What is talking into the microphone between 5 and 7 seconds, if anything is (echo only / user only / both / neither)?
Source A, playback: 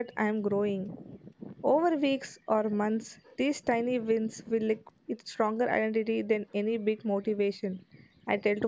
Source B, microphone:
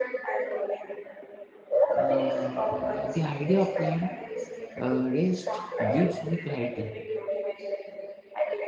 both